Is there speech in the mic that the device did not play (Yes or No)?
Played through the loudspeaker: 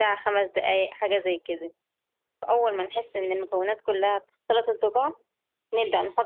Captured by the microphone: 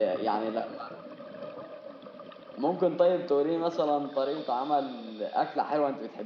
Yes